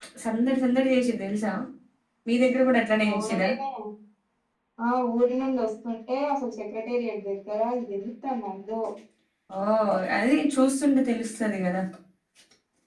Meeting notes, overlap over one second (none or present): none